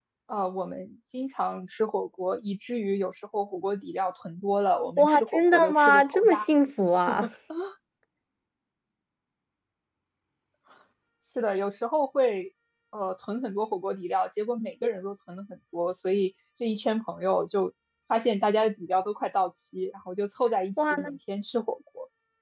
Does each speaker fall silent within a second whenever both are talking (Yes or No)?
No